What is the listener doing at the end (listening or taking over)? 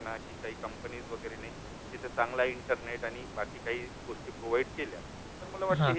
listening